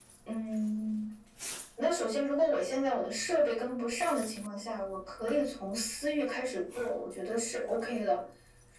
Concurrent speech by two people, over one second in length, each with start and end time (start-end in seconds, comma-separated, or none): none